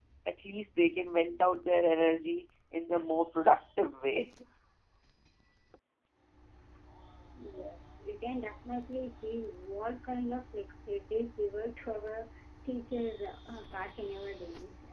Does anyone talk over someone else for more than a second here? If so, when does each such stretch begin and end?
none

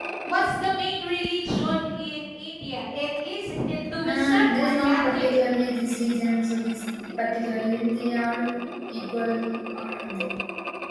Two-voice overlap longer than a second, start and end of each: 4.0-5.3

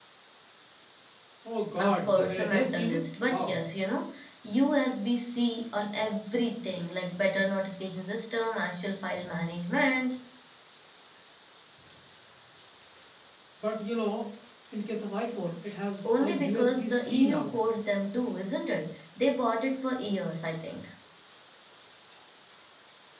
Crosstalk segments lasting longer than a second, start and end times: 1.8-3.6, 16.2-17.5

